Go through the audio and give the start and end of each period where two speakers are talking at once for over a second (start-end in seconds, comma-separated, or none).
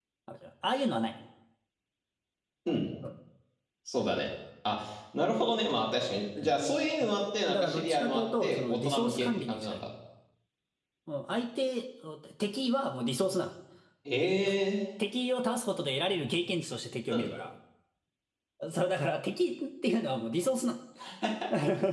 7.5-9.8